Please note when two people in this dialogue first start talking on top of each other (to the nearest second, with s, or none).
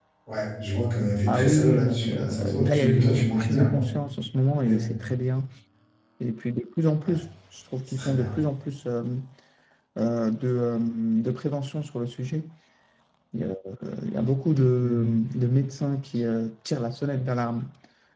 1 s